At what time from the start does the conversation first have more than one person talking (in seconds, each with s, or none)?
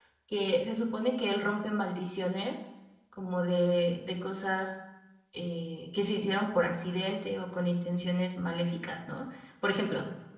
none